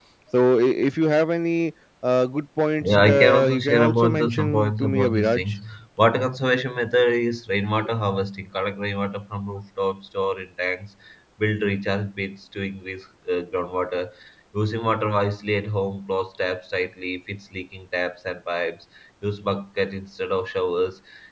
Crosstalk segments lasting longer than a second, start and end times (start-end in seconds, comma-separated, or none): 2.8-5.5